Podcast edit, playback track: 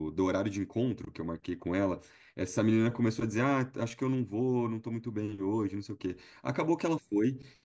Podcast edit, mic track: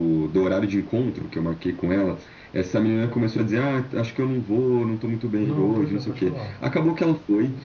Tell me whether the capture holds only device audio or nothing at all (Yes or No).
No